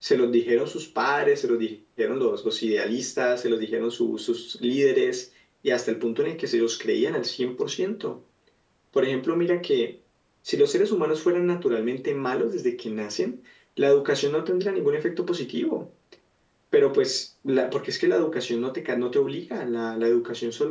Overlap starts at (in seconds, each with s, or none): none